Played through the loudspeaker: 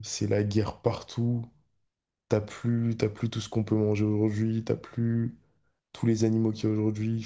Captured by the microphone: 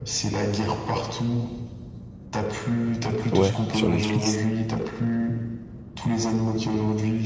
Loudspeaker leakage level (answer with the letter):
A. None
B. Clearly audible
B